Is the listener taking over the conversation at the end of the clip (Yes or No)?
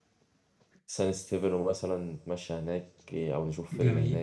Yes